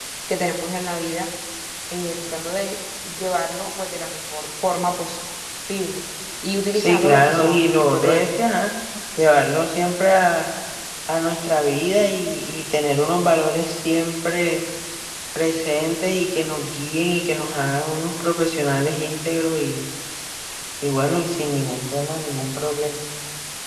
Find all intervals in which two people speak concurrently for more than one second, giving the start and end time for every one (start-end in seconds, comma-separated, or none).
6.8-8.4